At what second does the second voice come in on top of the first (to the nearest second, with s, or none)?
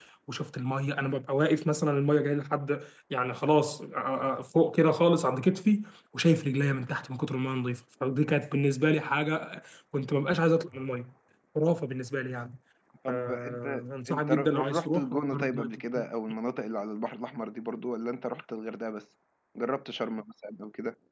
13 s